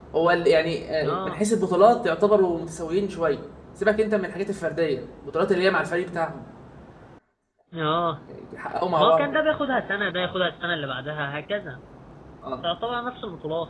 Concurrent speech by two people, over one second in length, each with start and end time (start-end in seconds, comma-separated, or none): none